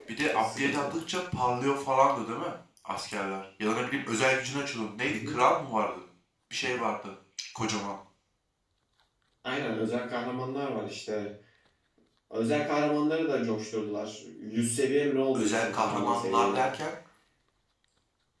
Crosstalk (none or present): present